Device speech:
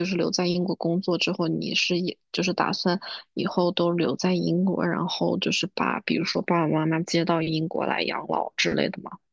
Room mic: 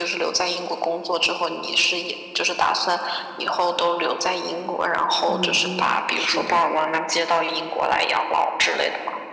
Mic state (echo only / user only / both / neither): both